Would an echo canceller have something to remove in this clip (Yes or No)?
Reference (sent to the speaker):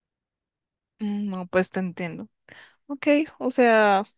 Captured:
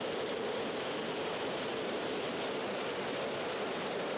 No